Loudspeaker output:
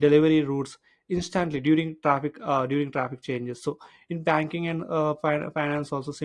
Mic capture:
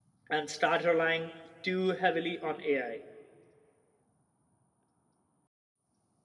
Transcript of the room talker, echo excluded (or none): and start relying too heavily on AI.